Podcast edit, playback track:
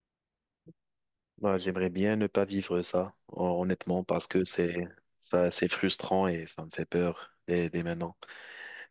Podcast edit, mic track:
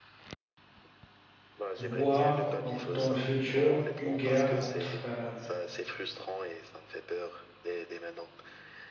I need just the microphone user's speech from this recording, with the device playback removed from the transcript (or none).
voir donc dans le futur une guerre entre euh,